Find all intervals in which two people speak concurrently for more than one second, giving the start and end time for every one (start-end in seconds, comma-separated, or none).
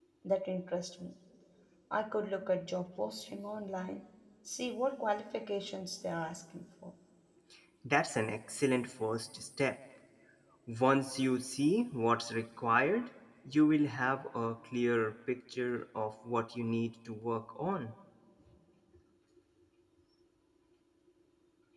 none